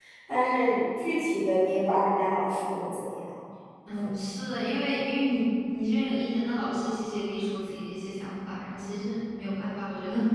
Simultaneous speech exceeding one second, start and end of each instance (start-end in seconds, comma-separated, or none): none